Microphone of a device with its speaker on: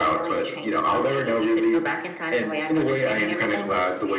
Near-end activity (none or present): none